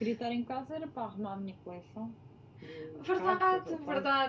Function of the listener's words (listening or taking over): taking over